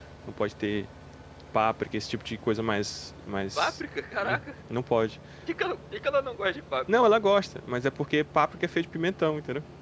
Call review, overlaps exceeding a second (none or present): none